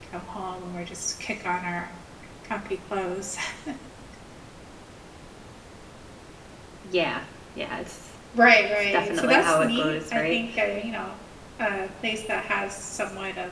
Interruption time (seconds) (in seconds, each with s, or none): 8.3 s